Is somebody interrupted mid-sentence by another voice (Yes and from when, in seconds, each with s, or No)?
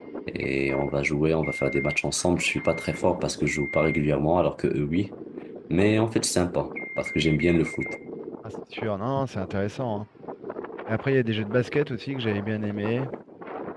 No